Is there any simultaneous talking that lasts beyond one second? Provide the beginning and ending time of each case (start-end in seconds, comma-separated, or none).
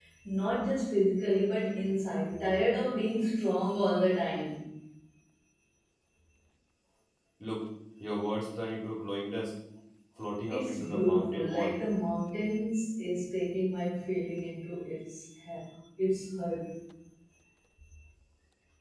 10.5-11.8